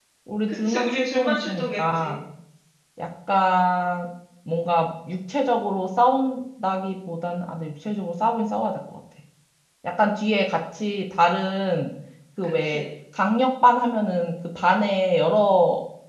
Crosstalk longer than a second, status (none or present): present